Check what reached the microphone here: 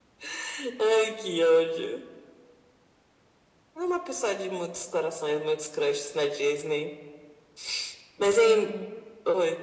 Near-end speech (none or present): present